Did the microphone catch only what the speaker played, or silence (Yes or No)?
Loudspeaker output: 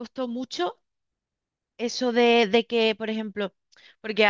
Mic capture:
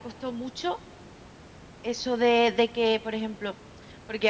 Yes